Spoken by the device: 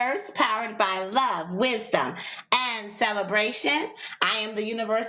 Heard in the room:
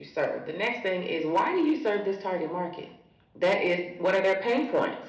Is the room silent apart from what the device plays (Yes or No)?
No